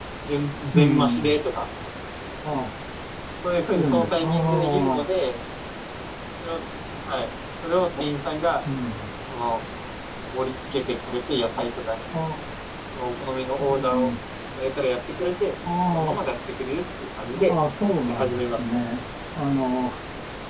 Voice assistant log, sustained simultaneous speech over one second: present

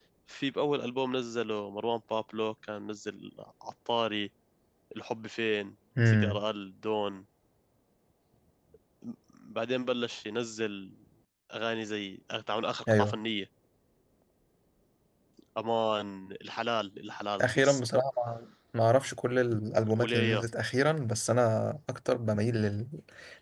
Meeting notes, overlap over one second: none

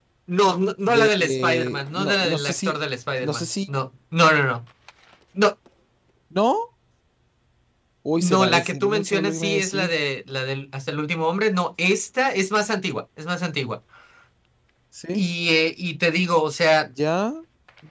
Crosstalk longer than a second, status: present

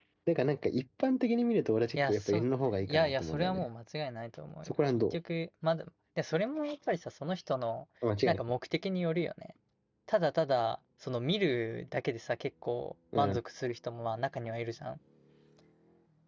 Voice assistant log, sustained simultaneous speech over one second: present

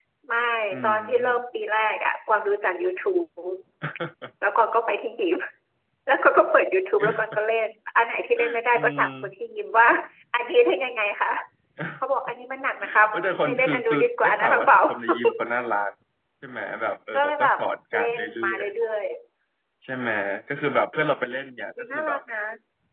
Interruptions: present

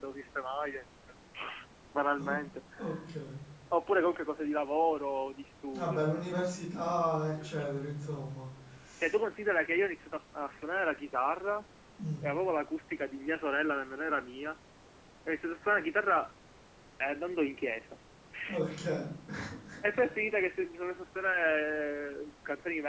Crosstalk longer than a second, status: none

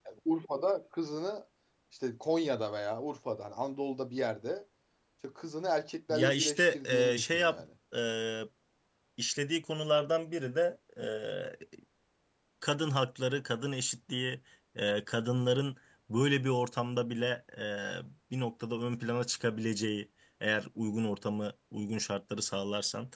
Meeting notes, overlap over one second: present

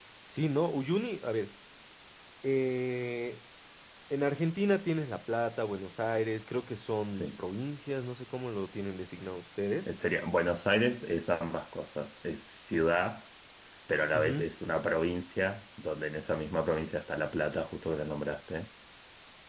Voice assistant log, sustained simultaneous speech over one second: none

